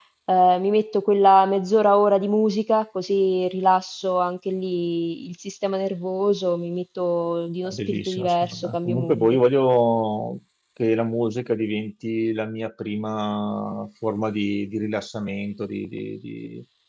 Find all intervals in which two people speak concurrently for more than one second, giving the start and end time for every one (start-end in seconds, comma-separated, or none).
7.6-9.4